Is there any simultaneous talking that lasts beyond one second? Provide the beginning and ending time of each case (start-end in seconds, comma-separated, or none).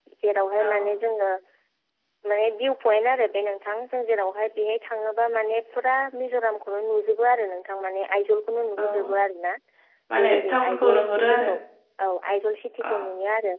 10.2-11.5